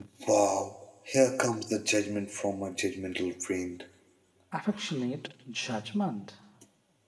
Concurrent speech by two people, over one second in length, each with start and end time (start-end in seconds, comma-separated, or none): none